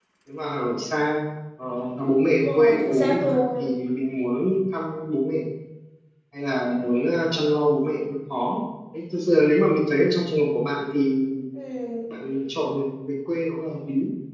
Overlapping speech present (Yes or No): Yes